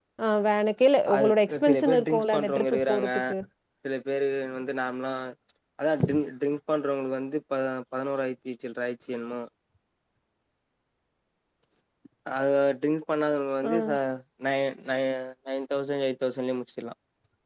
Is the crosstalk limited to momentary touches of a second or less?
No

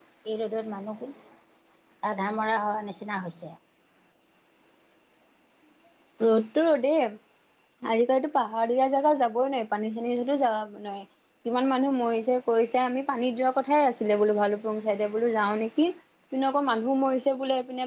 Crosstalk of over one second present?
No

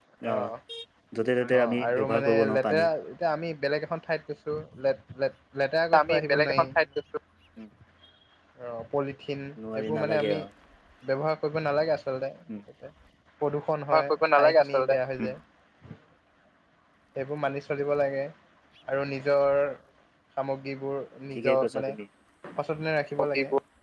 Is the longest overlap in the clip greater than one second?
Yes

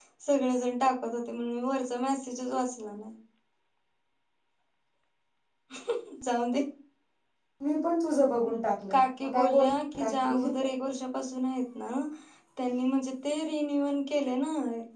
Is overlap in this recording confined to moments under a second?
No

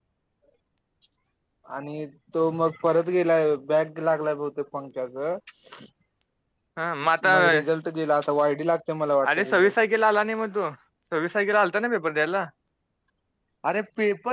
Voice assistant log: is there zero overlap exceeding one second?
Yes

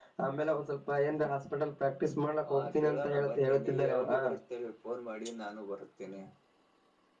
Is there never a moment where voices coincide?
No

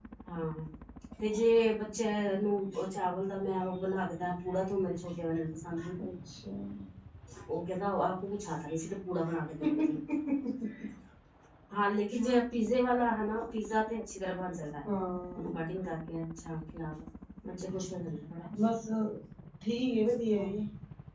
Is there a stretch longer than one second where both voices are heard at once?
No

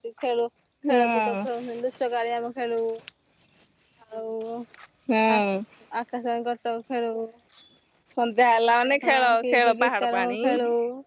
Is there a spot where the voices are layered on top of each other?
Yes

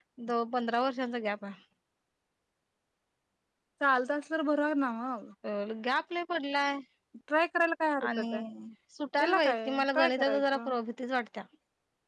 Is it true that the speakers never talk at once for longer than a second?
No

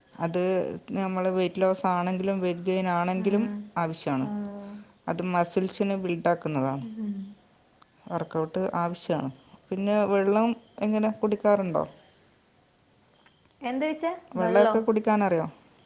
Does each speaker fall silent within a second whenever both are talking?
Yes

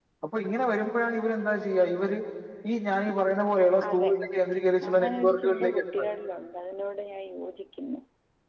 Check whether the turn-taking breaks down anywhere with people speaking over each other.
Yes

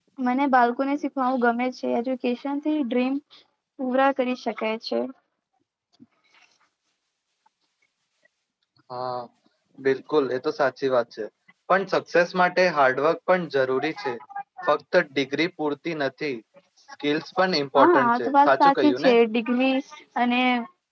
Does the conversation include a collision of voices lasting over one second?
Yes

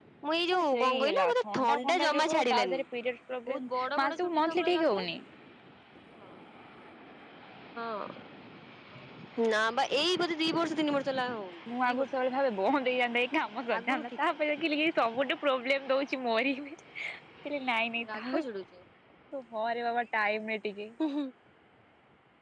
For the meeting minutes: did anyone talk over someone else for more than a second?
Yes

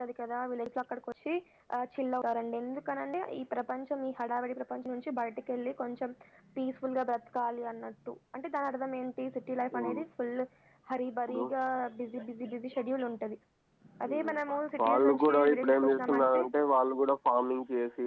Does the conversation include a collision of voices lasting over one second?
Yes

